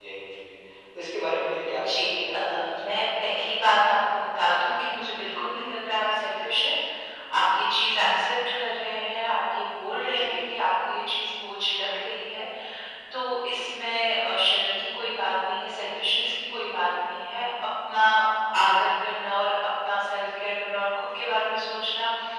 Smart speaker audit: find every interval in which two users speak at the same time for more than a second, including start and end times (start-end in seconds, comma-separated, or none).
1.8-3.0